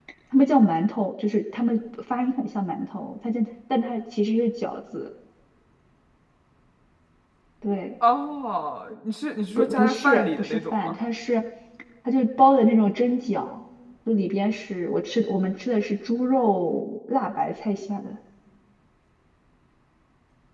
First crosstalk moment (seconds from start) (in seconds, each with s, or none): 9.6 s